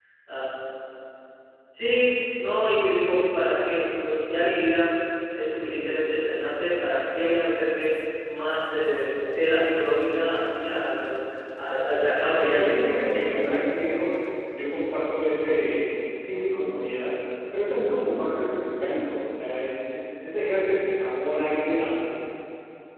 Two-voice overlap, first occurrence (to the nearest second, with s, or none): 12 s